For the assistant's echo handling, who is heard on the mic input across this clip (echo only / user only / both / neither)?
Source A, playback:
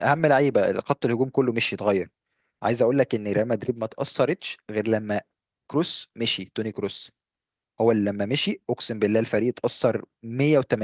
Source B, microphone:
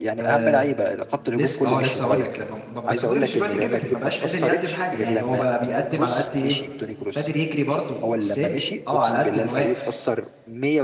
both